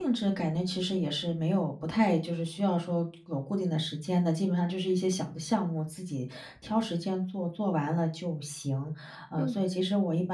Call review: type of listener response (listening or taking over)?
listening